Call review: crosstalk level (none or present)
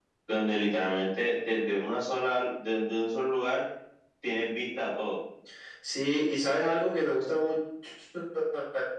none